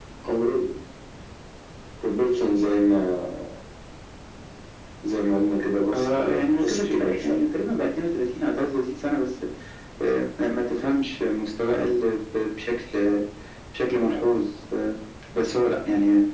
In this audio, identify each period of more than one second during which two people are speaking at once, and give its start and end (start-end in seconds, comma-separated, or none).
5.9-7.4